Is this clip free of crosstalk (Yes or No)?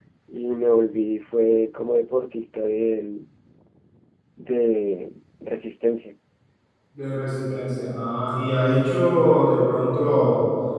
Yes